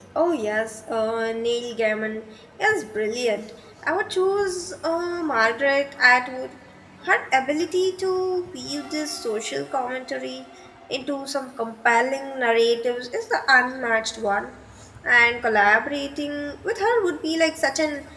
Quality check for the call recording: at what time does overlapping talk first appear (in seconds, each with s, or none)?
none